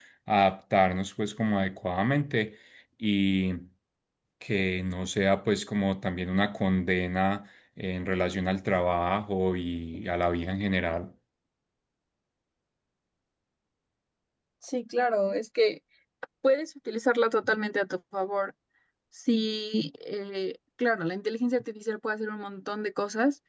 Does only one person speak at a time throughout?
Yes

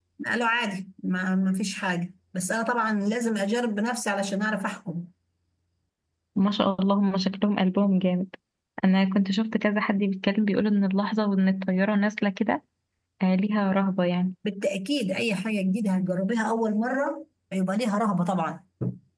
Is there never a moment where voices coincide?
Yes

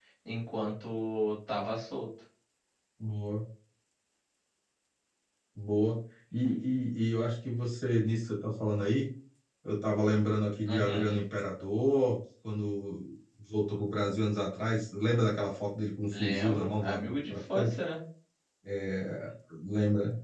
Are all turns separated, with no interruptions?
No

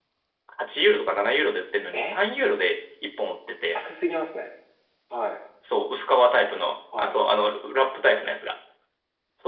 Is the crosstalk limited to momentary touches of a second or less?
Yes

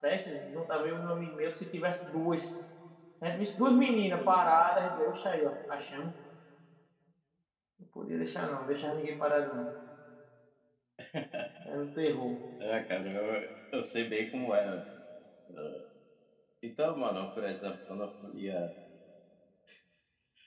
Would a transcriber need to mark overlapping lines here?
No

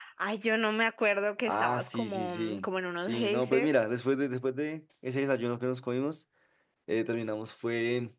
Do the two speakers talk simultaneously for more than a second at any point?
Yes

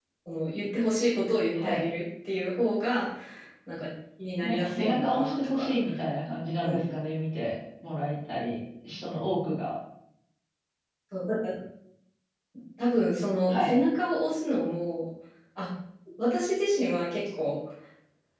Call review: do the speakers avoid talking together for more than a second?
No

